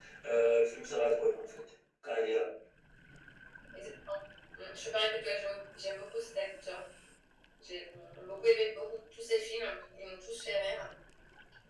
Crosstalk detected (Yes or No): No